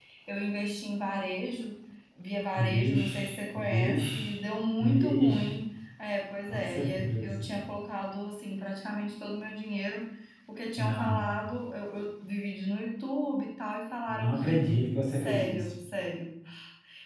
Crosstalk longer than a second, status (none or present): present